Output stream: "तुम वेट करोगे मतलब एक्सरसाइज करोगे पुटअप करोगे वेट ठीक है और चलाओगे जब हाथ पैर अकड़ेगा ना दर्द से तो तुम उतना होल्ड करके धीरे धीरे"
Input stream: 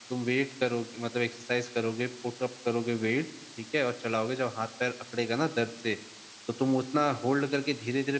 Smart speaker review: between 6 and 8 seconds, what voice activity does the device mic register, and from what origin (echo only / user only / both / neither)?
echo only